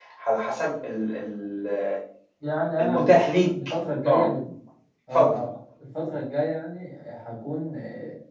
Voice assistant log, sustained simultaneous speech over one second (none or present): none